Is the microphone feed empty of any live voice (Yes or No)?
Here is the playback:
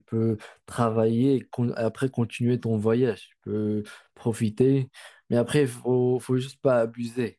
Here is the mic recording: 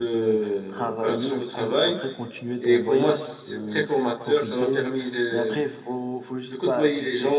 No